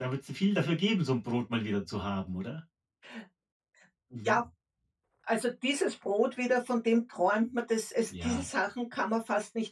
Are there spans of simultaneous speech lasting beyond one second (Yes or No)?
No